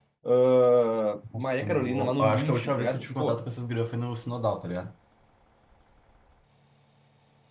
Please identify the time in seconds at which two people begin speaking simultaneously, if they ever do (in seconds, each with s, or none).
1.3 s